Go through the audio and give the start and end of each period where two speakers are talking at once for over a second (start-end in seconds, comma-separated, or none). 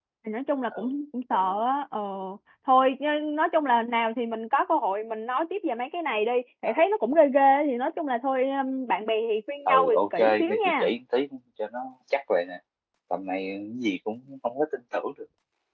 9.7-10.9